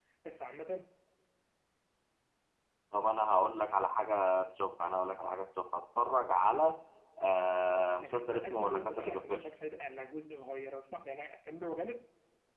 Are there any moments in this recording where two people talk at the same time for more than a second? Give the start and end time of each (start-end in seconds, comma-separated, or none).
8.0-9.5